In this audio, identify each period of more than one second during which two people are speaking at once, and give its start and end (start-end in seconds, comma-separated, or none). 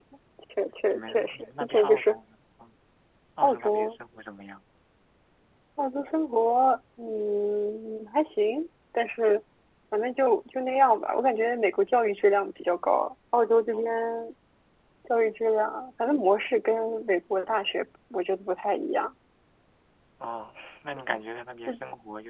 0.9-2.1